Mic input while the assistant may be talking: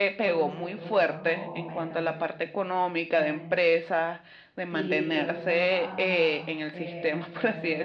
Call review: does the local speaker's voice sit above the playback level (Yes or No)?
No